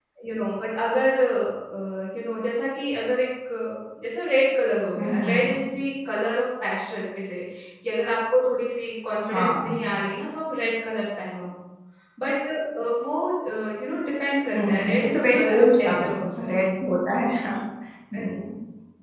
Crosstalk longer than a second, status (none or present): present